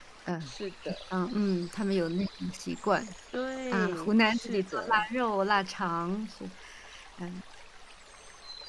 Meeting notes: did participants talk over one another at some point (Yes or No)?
Yes